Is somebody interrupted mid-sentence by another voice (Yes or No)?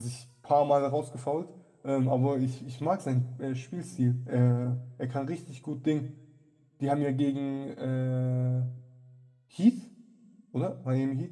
No